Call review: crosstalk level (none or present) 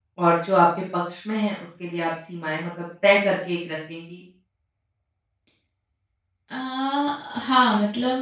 none